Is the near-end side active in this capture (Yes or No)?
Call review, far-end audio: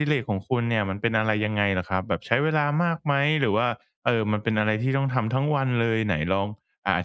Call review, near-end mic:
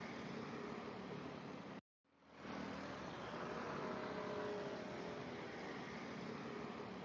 No